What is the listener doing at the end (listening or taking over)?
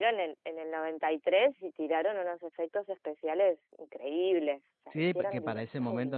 taking over